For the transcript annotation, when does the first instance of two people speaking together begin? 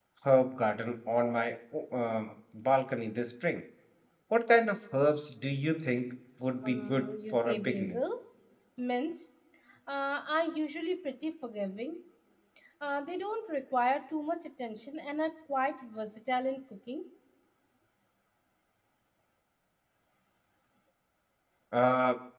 6.6 s

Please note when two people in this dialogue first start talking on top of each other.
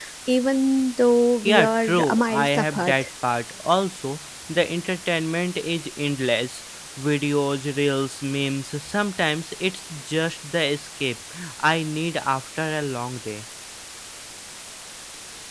1.4 s

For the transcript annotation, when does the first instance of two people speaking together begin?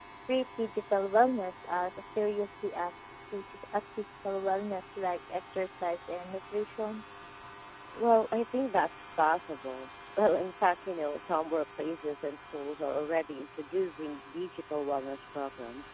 none

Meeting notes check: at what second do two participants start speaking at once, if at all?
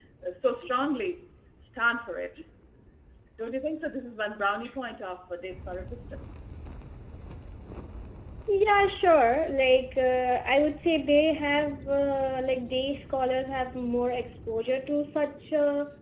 none

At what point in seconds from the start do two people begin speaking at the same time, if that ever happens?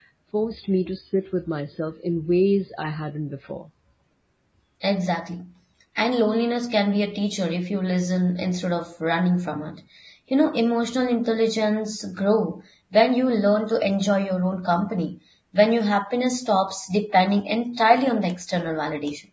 none

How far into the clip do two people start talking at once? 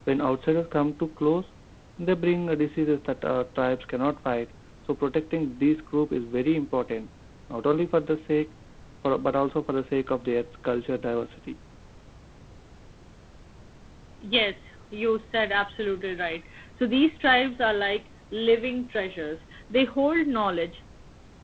none

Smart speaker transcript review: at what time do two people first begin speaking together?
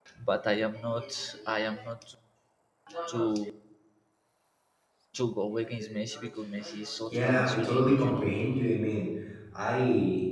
7.1 s

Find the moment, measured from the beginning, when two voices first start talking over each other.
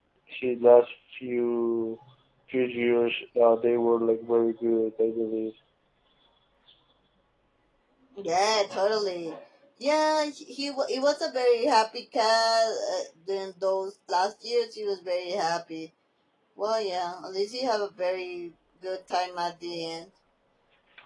none

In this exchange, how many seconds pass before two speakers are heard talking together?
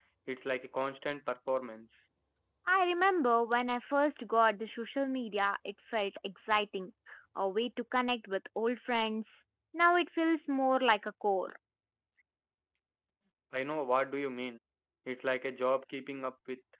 none

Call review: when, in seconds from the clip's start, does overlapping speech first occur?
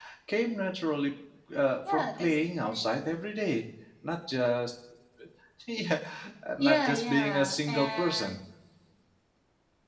1.9 s

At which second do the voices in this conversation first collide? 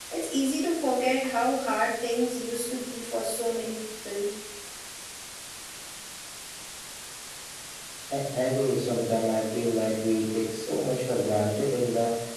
none

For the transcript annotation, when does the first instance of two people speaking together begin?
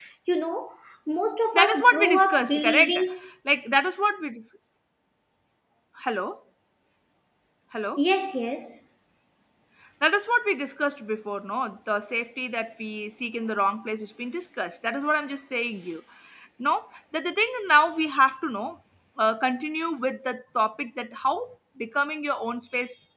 1.5 s

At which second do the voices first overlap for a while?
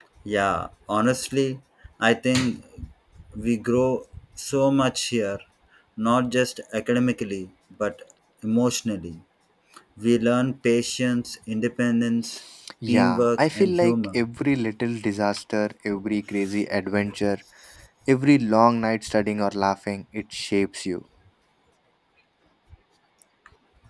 12.9 s

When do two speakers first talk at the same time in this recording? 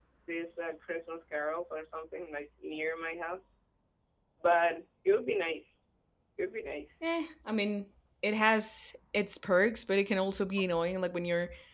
none

